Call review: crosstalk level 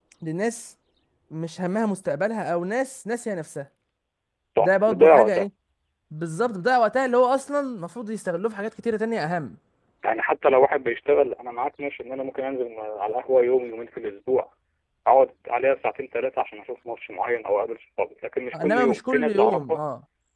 present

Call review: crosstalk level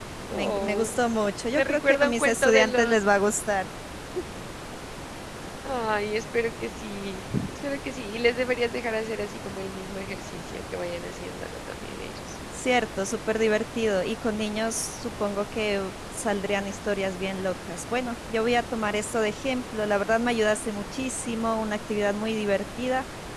present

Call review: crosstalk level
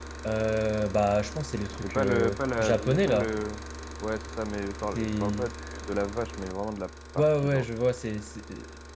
present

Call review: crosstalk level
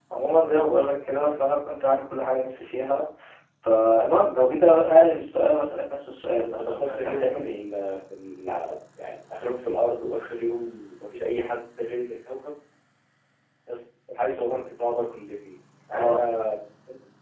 present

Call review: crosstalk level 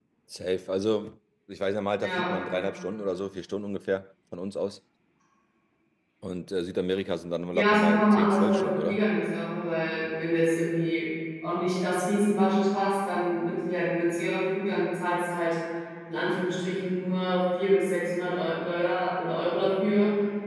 present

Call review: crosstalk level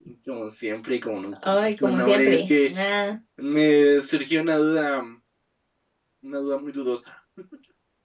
present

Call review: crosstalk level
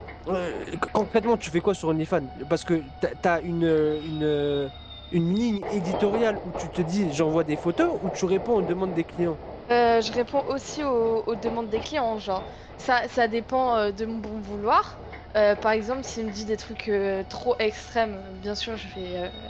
none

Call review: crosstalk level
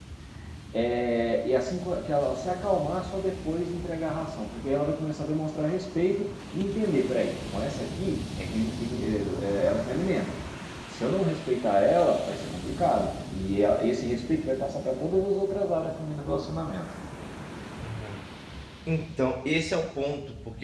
none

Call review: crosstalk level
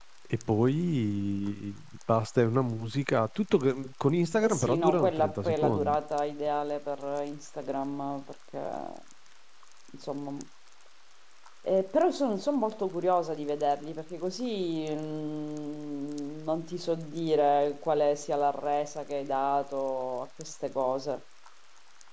present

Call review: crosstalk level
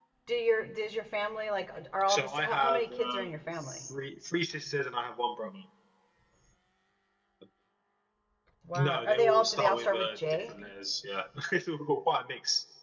present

